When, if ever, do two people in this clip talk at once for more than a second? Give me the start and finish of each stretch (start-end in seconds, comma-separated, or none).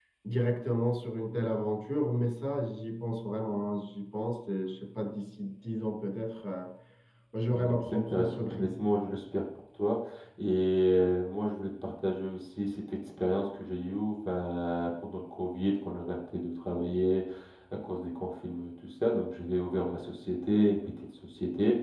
7.5-8.7